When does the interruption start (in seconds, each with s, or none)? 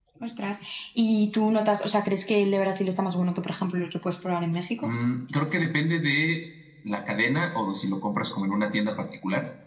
none